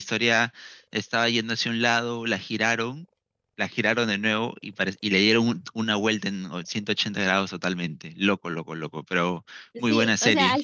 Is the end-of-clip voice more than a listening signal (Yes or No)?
Yes